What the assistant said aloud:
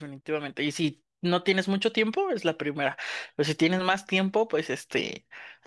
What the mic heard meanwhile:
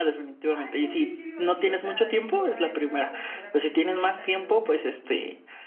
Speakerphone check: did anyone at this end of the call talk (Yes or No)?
Yes